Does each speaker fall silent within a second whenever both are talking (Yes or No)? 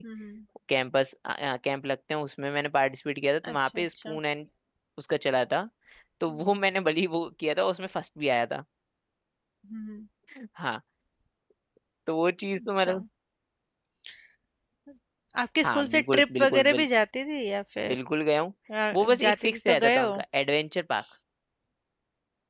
No